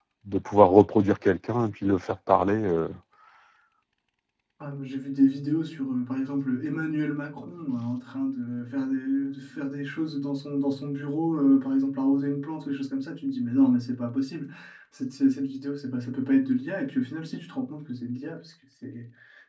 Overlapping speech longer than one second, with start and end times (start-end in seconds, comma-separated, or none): none